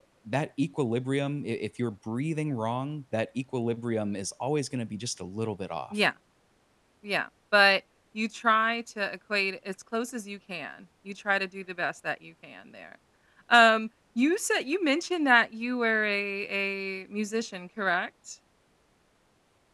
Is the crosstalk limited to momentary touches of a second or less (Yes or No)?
Yes